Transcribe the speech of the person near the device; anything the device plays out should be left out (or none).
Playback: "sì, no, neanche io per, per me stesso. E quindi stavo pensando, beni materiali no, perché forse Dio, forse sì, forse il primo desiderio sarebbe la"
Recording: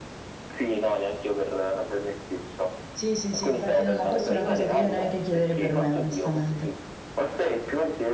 sì, sì, sì, infatti no, ma questa è una cosa che io neanche chiederei per me, onestamente.